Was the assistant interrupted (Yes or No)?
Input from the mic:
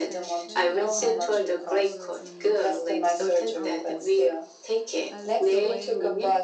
Yes